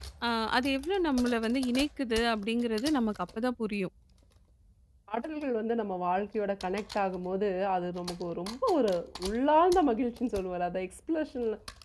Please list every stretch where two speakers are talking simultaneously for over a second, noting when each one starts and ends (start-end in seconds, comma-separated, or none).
none